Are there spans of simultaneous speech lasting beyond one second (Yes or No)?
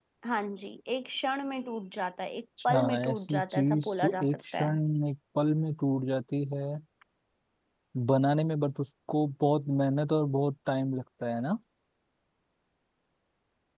Yes